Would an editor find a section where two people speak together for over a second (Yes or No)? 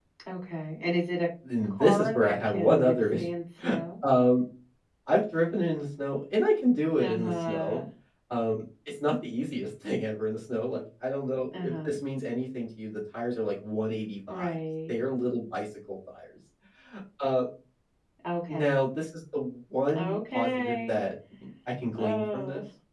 Yes